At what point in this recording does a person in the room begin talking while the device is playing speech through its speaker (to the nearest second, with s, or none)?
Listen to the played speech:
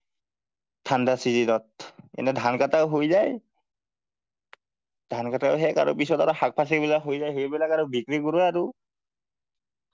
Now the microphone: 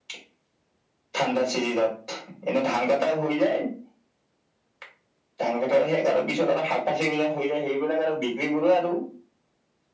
none